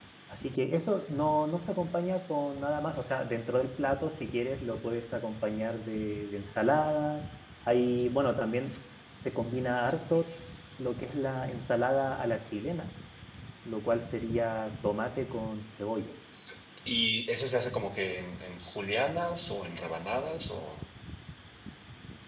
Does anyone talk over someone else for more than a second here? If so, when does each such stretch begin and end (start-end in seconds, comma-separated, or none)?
none